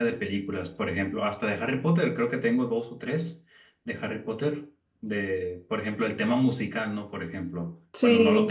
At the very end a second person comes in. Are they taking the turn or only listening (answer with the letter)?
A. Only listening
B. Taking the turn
A